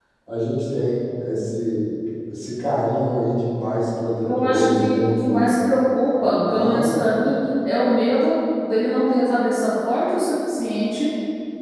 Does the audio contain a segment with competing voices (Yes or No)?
Yes